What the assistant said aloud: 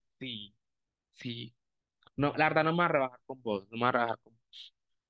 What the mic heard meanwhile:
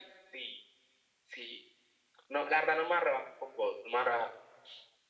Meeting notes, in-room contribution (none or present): none